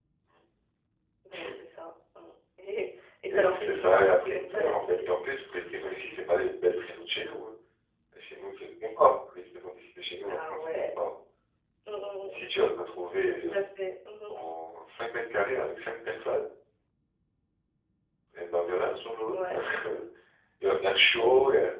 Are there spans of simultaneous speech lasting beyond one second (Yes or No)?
Yes